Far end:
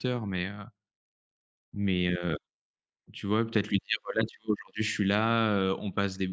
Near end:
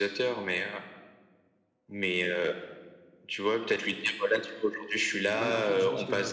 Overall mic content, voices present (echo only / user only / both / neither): both